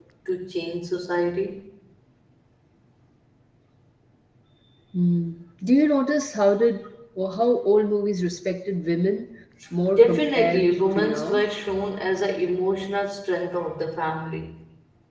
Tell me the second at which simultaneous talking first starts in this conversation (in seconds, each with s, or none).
9.9 s